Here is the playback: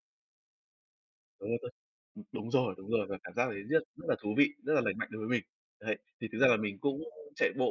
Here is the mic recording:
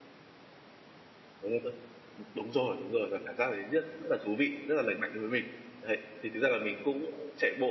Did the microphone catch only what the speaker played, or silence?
Yes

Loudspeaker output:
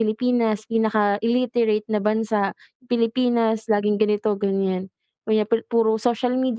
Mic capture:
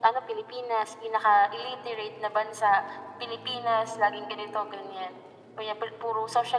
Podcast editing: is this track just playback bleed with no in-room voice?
Yes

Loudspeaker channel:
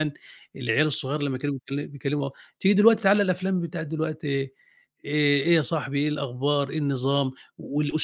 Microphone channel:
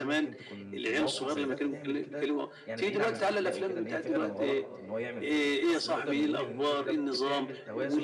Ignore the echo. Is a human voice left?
Yes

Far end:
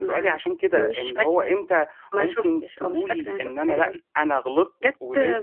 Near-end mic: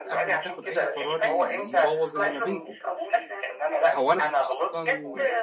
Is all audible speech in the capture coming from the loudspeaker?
No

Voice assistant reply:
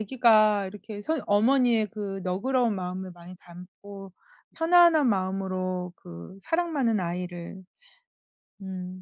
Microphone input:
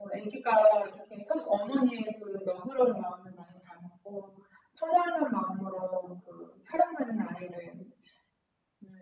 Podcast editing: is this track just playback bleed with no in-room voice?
Yes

